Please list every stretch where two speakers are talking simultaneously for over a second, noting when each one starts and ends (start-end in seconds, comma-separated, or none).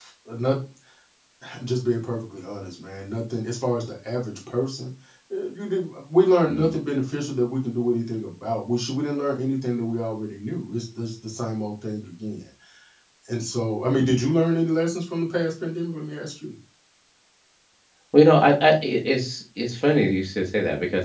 none